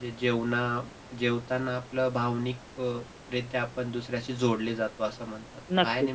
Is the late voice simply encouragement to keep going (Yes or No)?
No